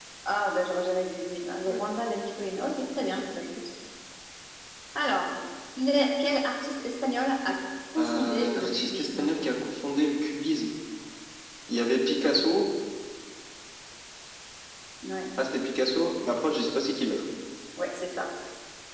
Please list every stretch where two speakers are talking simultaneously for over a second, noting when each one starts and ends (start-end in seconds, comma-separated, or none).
8.0-9.3